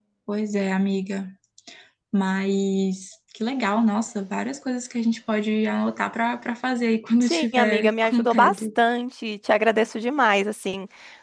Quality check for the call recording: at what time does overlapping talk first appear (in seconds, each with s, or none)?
7.2 s